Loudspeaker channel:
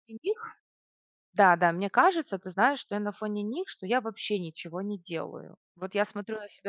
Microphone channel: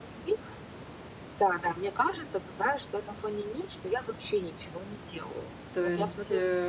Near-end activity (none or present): present